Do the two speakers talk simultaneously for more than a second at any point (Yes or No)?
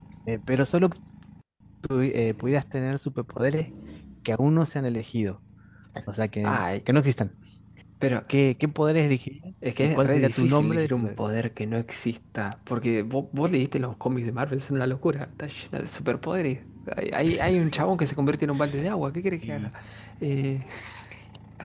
Yes